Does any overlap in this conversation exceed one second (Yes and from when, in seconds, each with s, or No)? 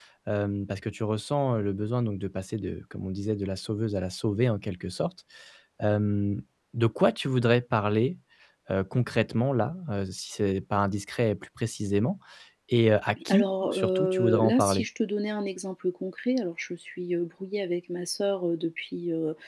Yes, from 13.3 s